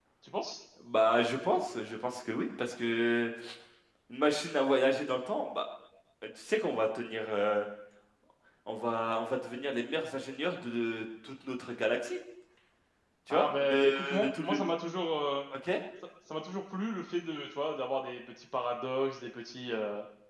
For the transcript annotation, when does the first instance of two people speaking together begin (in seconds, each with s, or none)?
13.3 s